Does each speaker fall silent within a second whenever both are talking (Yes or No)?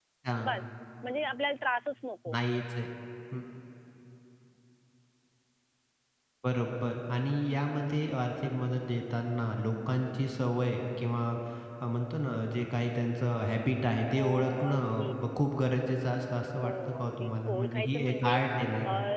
No